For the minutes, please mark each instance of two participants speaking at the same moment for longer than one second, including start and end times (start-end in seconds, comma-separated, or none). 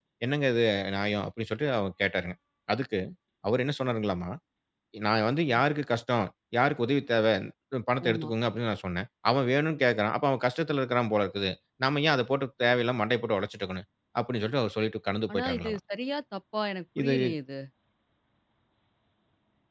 none